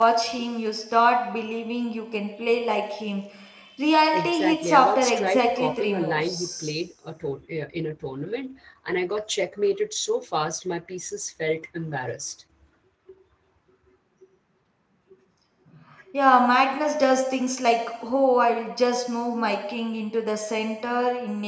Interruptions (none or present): present